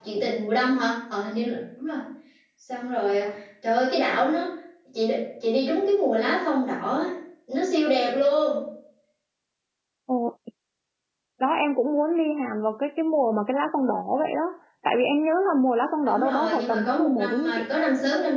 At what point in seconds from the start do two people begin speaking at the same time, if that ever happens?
16.1 s

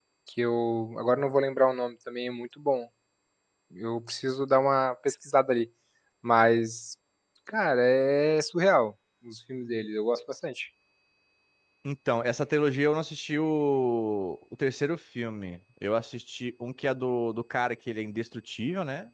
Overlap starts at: none

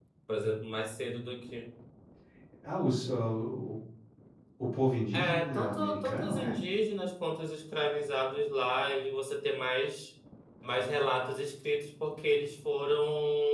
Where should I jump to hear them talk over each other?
5.1 s

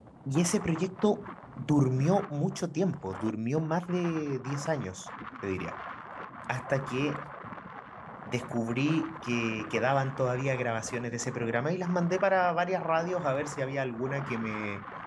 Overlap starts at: none

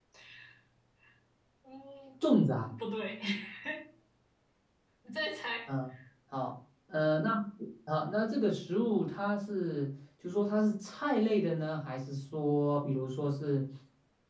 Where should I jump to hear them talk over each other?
none

